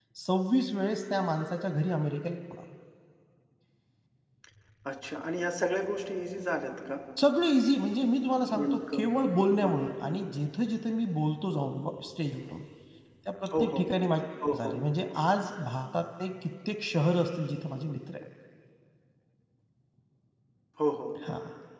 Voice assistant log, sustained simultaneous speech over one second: present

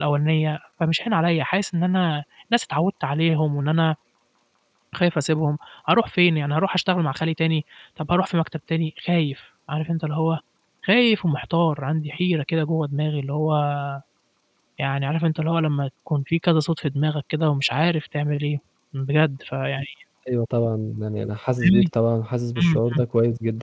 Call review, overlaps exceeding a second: none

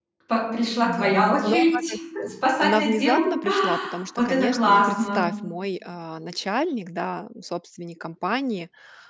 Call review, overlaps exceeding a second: present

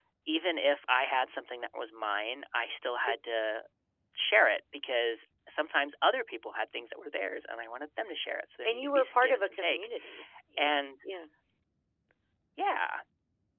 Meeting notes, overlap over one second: present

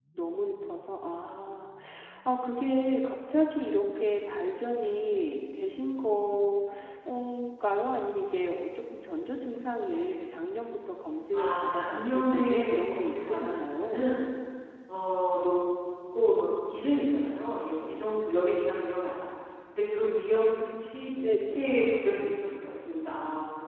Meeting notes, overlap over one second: present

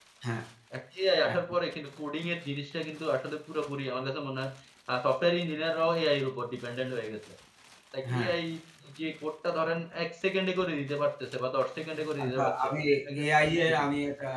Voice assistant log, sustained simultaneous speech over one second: none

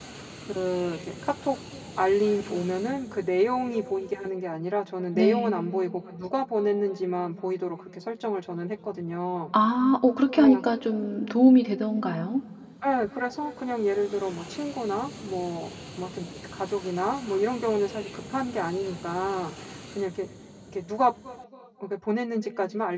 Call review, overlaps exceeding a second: none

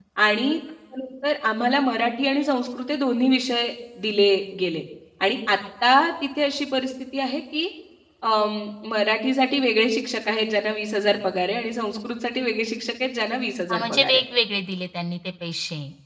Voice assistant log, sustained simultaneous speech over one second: none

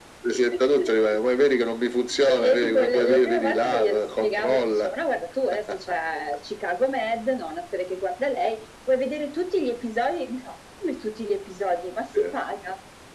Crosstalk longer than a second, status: present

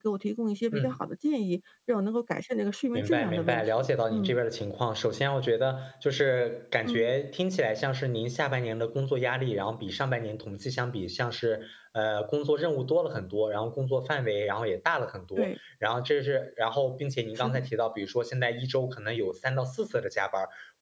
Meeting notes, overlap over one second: present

